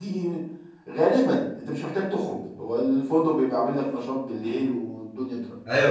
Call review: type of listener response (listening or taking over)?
taking over